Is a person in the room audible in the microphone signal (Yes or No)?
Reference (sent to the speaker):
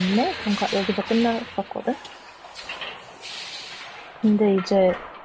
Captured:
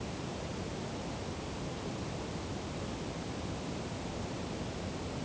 No